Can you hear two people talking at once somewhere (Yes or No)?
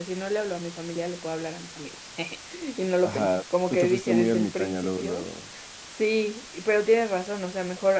Yes